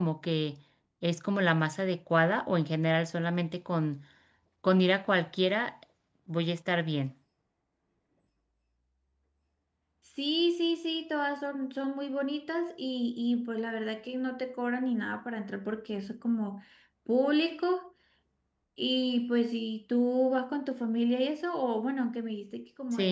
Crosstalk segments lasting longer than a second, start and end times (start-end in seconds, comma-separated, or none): none